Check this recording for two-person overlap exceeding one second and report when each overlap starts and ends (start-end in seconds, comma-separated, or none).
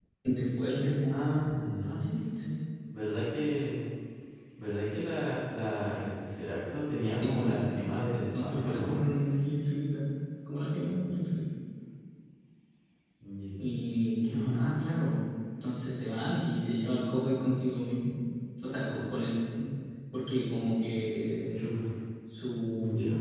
7.2-9.0